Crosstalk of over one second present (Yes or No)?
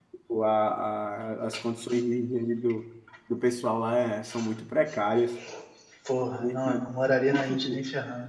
No